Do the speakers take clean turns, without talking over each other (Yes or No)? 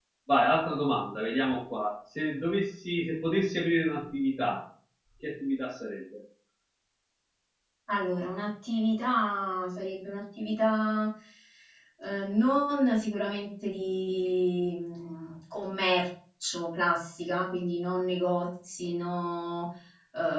Yes